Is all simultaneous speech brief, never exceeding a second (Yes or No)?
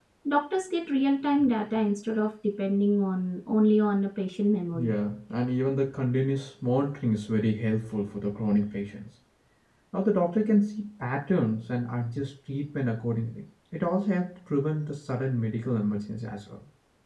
Yes